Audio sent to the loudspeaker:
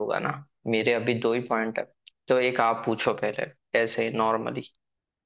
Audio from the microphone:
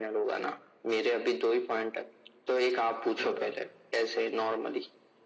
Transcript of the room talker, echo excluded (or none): कोई बात